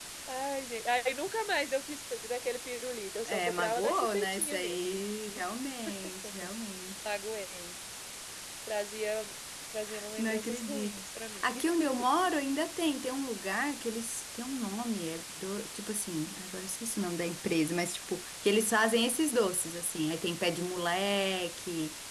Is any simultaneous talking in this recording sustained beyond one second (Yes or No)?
Yes